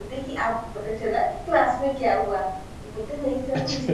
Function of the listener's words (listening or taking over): listening